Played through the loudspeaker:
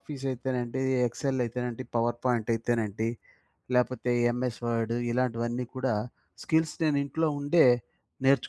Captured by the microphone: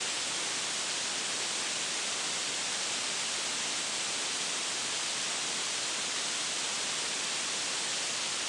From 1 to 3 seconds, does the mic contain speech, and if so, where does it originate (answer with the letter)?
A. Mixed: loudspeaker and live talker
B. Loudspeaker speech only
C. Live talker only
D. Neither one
D